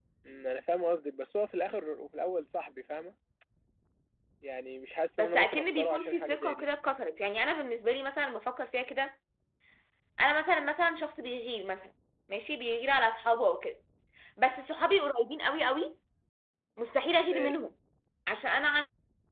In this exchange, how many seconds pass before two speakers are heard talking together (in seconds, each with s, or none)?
5.2 s